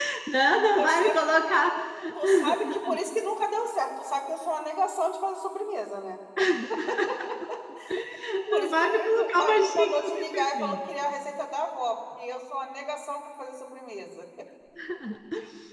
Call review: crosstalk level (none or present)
present